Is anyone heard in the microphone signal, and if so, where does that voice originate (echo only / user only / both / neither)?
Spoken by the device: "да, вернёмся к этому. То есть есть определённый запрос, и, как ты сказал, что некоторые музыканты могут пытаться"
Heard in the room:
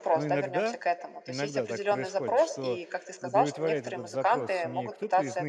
both